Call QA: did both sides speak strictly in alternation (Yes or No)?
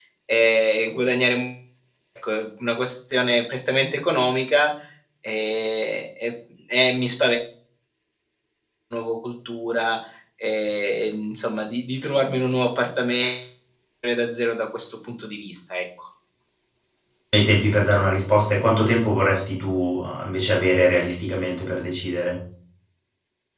Yes